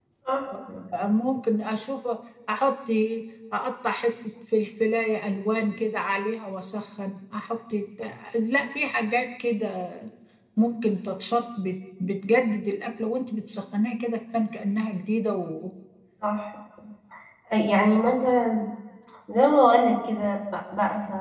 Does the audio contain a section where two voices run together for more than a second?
No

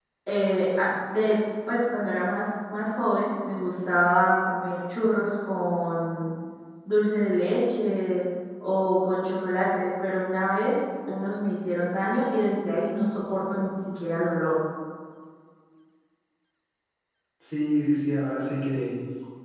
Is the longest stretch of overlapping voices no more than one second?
Yes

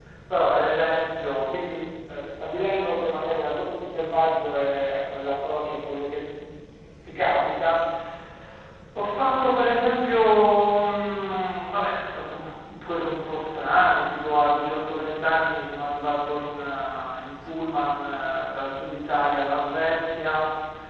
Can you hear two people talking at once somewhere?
No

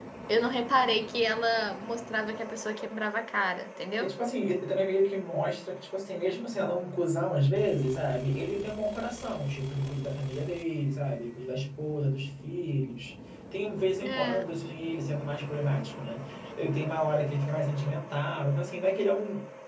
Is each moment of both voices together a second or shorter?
Yes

